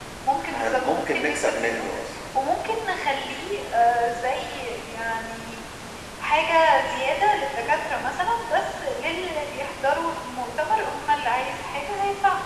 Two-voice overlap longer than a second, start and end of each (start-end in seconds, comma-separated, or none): 0.5-1.9